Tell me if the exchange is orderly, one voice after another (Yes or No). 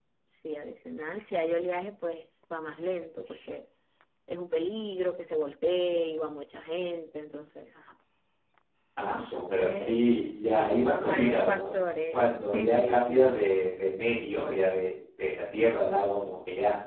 No